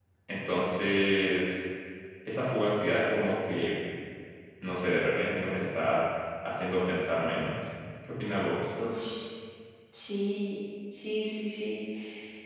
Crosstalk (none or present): none